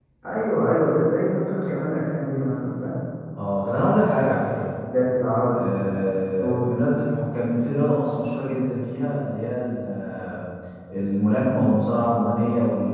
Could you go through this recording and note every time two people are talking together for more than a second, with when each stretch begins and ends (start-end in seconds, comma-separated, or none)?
none